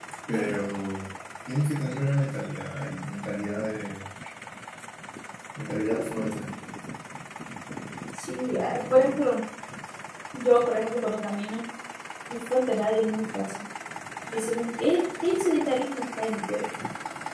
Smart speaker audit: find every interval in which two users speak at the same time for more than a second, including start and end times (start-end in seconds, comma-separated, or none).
none